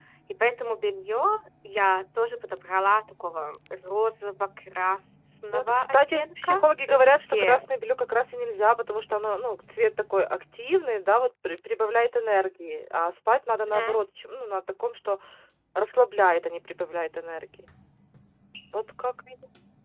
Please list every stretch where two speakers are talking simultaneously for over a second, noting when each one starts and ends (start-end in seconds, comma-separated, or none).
5.5-7.6